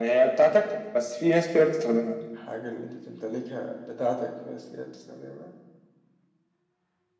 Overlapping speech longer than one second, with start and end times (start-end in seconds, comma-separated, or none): none